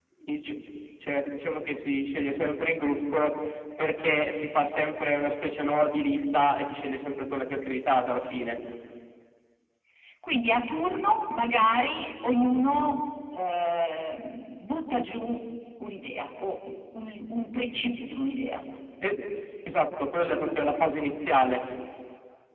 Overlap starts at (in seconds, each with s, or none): none